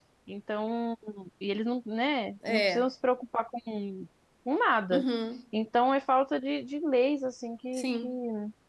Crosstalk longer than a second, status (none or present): none